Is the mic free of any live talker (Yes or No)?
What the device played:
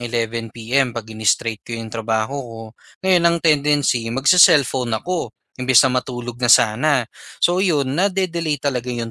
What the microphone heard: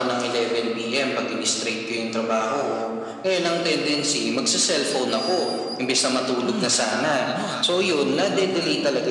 No